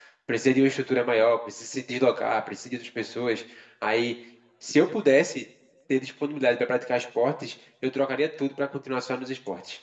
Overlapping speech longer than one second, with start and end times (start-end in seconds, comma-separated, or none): none